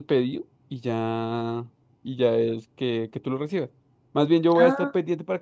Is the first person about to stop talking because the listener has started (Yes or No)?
No